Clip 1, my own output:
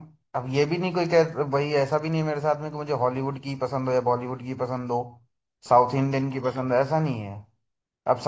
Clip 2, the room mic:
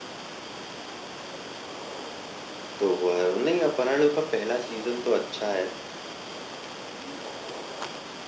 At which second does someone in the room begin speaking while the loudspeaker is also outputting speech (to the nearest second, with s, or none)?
3 s